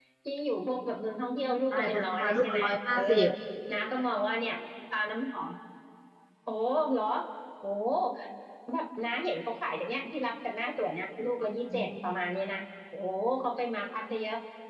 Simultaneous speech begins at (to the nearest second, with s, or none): 2 s